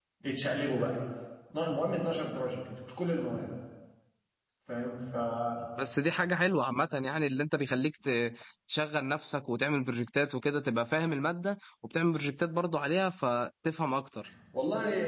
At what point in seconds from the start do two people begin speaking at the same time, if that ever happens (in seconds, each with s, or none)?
none